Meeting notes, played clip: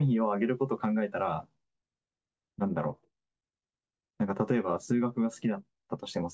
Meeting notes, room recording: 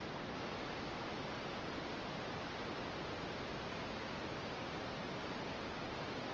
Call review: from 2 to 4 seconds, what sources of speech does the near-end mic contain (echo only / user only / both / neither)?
neither